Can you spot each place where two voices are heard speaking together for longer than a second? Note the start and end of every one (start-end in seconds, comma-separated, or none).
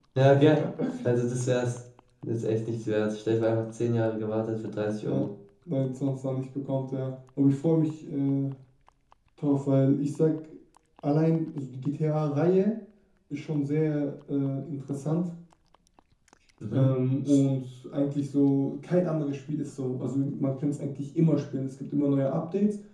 none